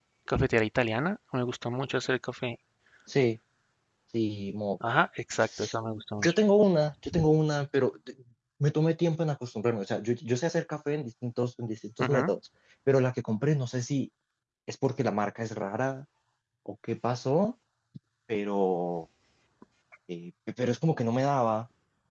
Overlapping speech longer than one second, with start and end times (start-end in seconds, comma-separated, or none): none